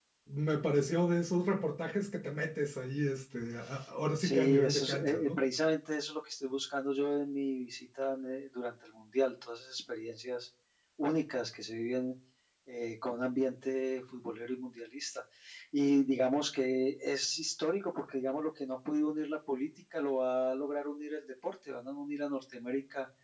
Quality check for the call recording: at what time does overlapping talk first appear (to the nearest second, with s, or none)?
4 s